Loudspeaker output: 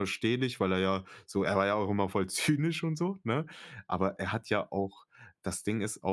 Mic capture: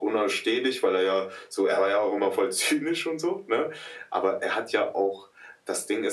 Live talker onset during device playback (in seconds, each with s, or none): none